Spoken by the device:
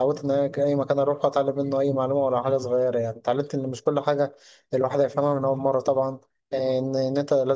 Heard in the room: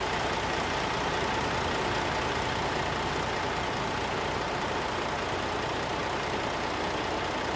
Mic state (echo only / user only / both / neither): neither